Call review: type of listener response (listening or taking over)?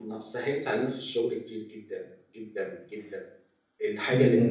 listening